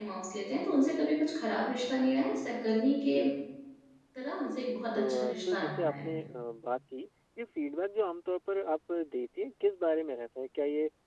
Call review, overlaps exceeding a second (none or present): present